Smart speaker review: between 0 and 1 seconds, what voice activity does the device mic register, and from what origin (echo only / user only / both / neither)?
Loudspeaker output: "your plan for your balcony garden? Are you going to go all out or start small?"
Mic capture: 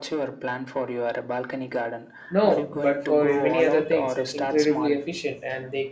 echo only